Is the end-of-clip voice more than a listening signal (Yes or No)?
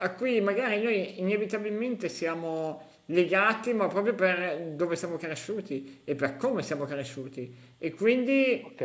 No